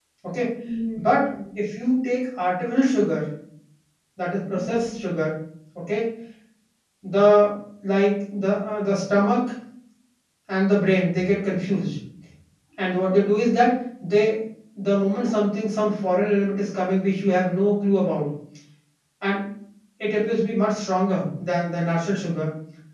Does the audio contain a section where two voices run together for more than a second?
No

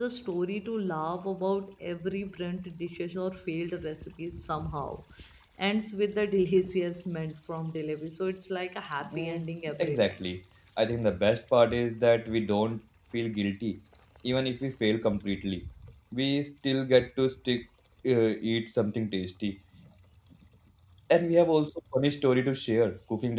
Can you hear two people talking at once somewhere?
Yes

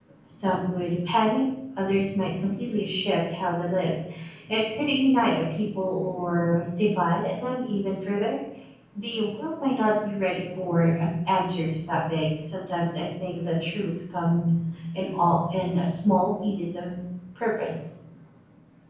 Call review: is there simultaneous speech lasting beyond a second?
No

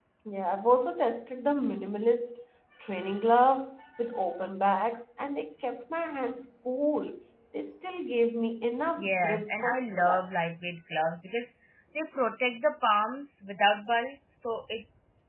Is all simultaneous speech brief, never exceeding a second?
No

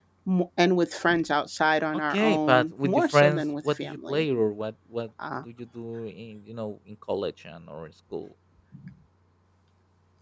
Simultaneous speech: Yes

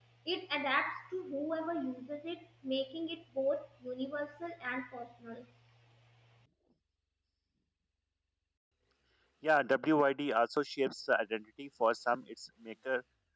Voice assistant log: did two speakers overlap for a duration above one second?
No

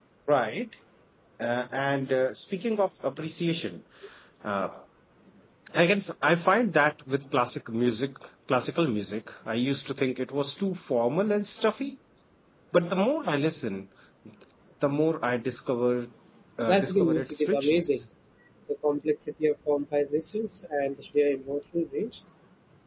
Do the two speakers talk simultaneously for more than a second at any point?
Yes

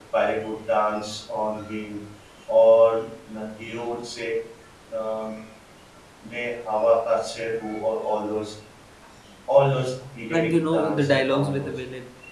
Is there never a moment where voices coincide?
No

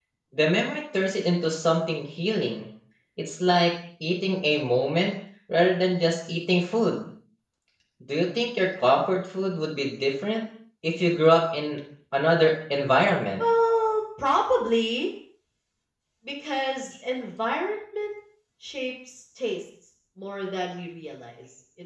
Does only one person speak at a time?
Yes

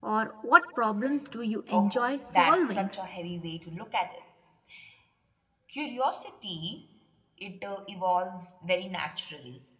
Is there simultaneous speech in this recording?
Yes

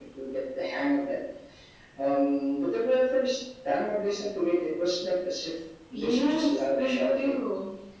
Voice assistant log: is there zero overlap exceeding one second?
No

